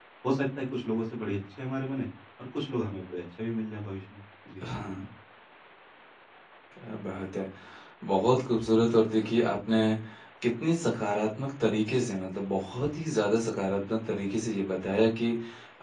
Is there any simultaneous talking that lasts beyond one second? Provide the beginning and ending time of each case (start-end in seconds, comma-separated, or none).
none